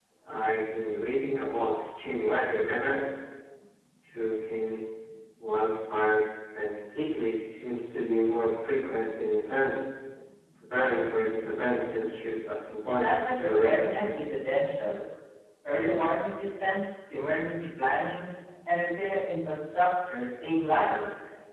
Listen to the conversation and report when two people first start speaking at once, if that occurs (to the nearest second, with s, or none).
13 s